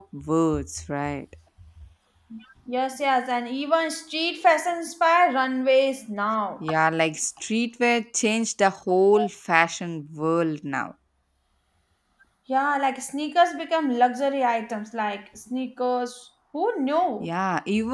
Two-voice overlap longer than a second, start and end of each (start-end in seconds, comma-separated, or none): none